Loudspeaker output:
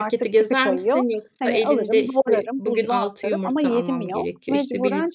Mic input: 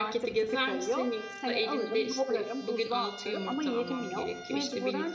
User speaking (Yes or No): No